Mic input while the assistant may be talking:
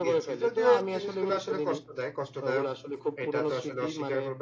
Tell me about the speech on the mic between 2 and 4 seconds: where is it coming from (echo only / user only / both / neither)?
both